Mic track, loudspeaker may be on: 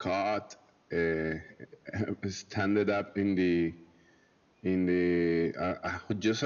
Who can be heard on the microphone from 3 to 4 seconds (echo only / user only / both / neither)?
echo only